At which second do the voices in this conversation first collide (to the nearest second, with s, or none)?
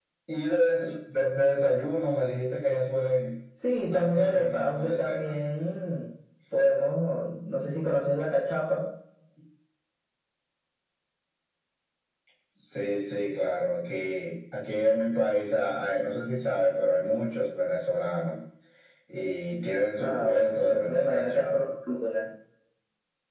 4 s